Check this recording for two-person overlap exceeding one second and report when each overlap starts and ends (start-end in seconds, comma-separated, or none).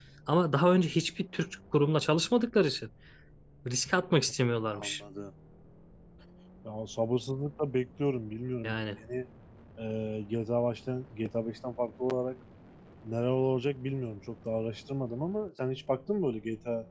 none